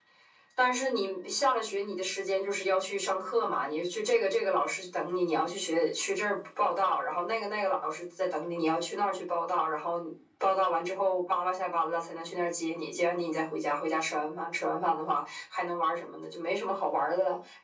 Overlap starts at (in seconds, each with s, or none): none